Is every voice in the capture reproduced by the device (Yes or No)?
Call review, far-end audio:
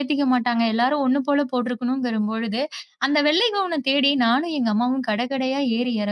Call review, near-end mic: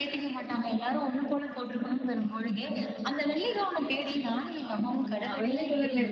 No